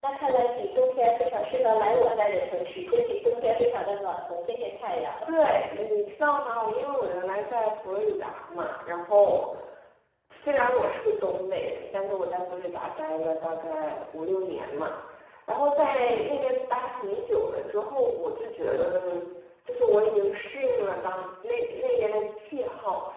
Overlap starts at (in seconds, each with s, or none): none